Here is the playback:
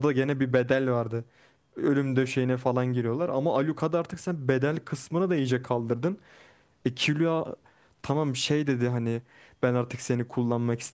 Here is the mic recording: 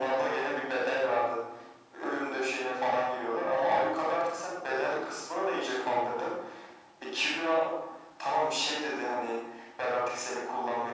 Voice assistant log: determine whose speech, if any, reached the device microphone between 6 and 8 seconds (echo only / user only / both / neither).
echo only